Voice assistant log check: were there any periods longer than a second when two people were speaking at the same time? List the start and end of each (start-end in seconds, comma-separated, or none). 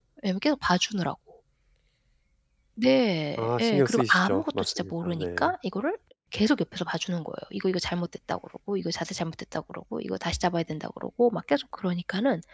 3.4-5.5